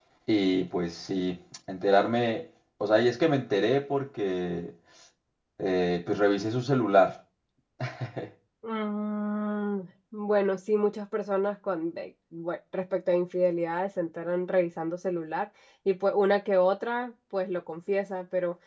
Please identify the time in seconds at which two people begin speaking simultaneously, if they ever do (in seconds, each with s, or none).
none